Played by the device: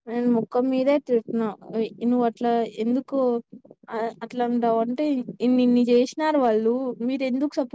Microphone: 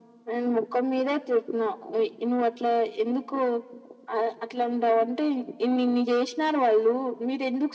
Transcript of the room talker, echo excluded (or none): none